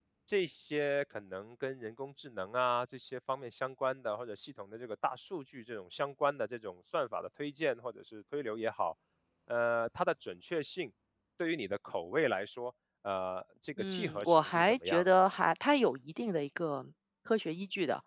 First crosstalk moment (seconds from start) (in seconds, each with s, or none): 13.8 s